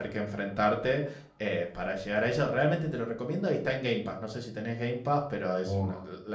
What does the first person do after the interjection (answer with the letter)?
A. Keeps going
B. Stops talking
B